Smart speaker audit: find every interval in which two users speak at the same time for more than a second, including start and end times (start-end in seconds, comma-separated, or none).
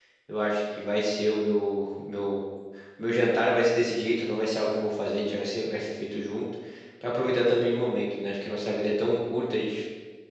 none